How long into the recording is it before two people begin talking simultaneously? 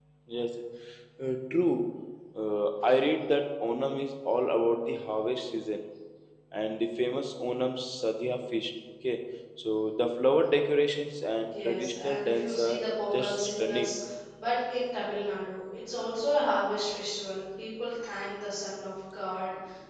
11 s

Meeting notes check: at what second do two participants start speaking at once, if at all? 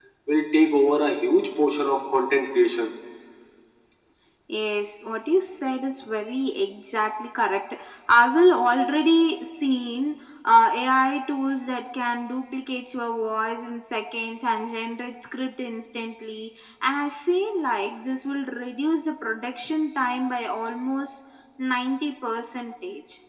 none

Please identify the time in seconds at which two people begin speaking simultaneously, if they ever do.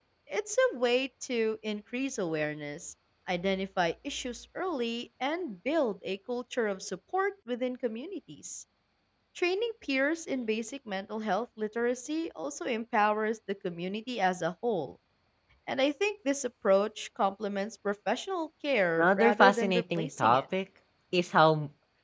19 s

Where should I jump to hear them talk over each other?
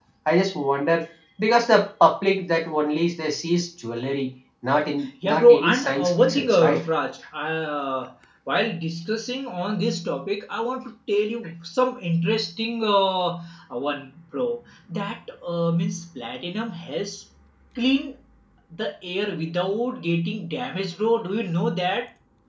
5 s

